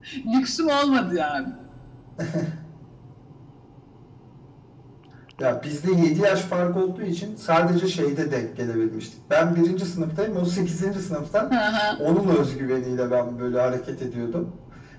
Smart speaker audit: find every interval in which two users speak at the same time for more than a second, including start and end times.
none

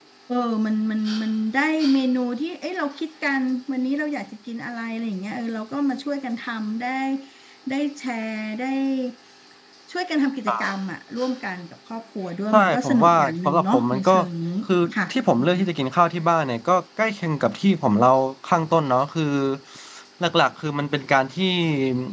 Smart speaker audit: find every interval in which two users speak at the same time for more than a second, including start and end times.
12.5-14.1

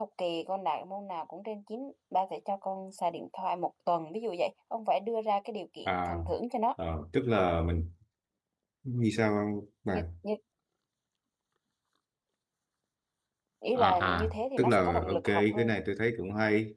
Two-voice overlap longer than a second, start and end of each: 13.8-15.8

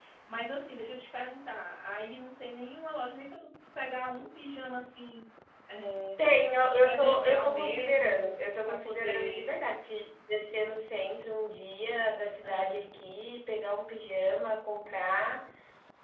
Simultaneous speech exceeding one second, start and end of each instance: 6.8-9.5

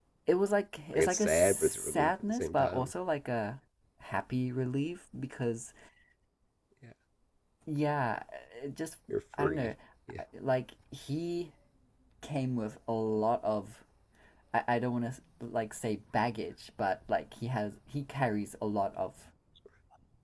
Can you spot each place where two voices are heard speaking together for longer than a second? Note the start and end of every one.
0.9-2.9

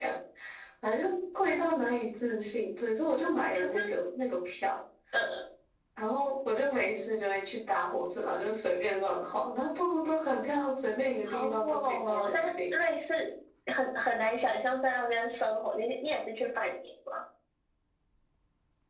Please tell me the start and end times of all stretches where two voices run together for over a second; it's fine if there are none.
11.3-12.5

